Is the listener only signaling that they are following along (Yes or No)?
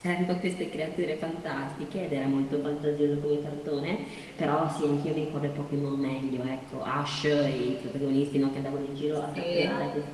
Yes